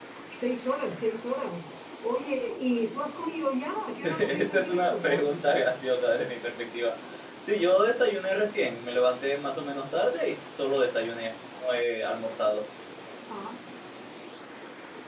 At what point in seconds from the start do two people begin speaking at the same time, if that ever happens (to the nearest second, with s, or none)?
4 s